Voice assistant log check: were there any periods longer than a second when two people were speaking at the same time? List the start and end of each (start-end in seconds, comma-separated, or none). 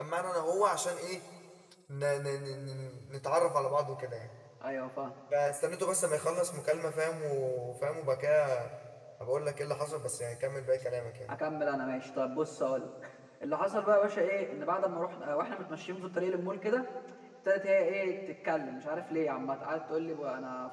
none